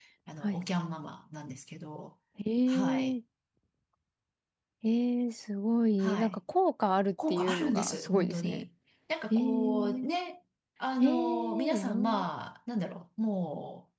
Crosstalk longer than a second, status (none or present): present